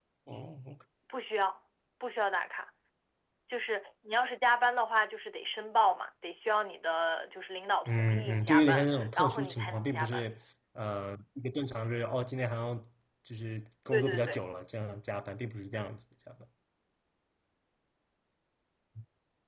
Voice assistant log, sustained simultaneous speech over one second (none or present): present